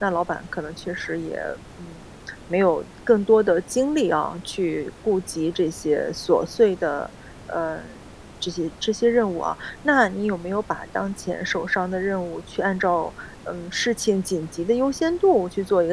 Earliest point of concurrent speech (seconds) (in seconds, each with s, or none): none